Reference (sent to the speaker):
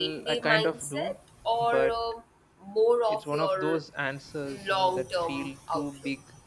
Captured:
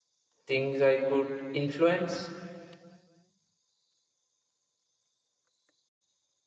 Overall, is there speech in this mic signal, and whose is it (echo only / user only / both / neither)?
user only